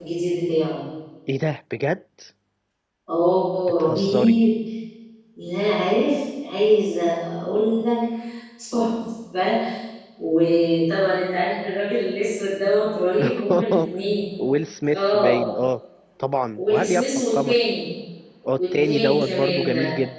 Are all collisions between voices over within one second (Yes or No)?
No